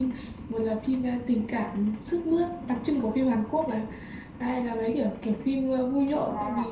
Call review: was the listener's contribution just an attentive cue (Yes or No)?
No